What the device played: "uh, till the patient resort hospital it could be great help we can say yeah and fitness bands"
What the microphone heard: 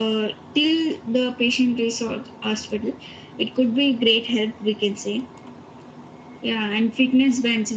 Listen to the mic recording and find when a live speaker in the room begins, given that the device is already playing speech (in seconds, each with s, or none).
none